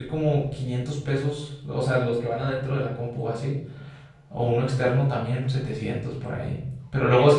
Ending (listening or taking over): listening